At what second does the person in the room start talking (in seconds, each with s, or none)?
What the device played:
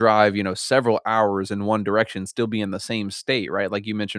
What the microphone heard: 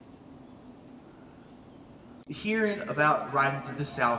2.3 s